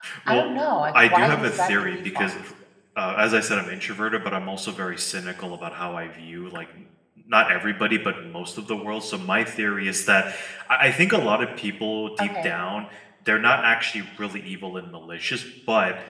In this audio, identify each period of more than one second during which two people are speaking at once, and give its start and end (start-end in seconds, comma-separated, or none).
0.9-2.3